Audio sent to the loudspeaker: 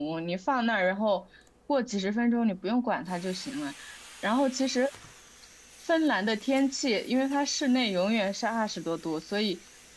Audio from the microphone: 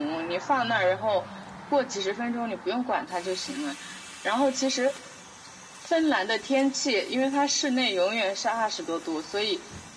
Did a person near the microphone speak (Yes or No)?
No